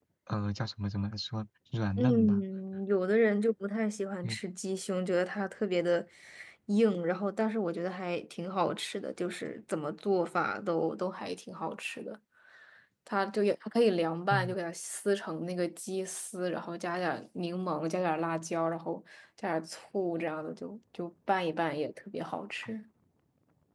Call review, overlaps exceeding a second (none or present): none